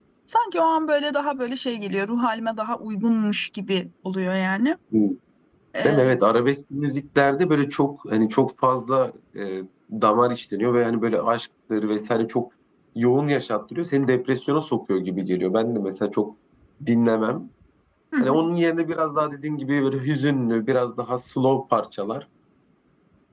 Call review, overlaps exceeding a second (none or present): none